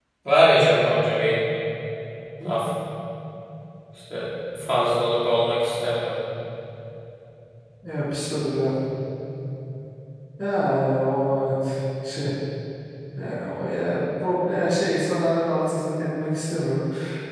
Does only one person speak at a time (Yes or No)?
Yes